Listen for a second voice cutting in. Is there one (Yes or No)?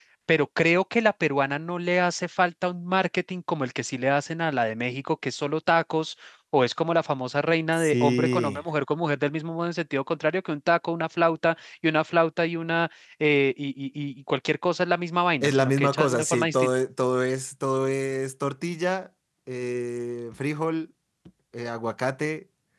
Yes